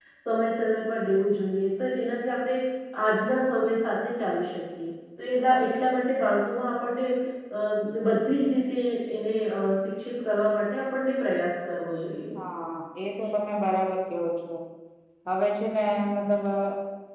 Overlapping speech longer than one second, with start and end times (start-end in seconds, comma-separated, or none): none